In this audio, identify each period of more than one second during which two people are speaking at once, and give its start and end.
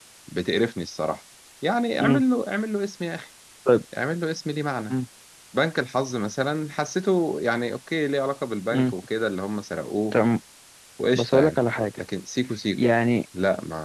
none

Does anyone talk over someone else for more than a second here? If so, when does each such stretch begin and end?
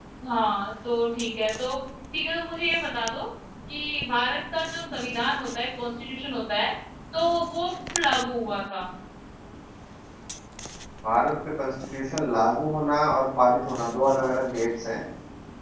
none

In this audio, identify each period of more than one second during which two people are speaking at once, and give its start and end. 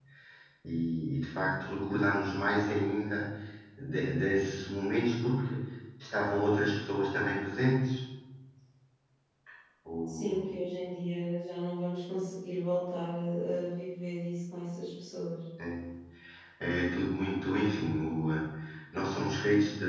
none

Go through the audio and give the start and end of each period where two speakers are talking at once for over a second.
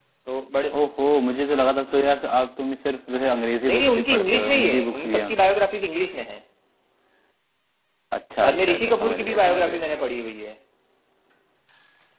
3.7-5.3, 8.4-9.8

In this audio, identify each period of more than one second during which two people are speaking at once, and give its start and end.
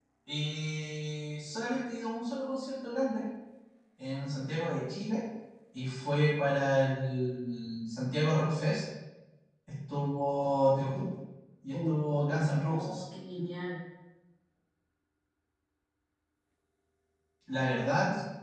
11.7-13.0

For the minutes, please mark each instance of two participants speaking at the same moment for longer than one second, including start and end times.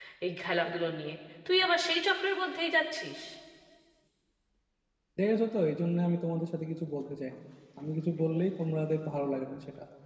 none

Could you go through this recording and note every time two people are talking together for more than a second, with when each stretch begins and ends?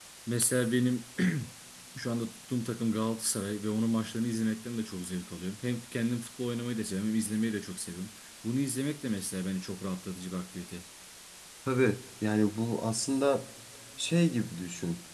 none

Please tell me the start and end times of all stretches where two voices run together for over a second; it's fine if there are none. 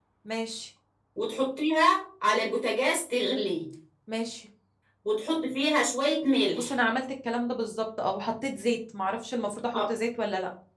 none

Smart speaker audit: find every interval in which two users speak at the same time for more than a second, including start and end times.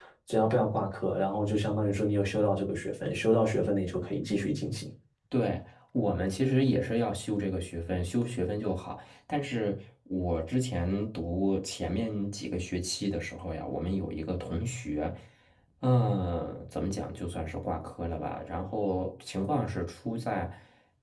none

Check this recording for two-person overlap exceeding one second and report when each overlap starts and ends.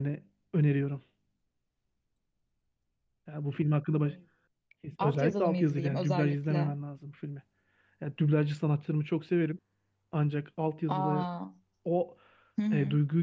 5.0-6.8

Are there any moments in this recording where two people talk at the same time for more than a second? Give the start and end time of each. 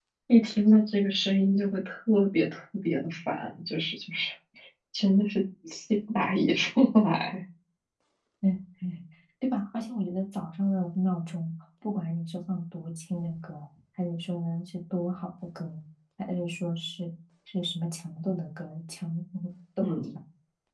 none

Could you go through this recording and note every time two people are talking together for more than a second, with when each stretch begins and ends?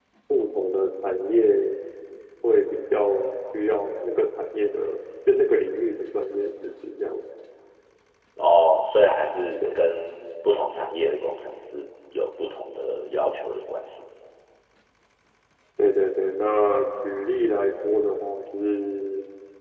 none

